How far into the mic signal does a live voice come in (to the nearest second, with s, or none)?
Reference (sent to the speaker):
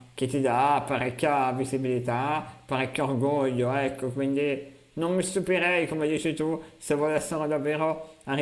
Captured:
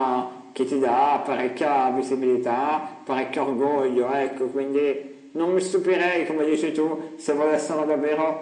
none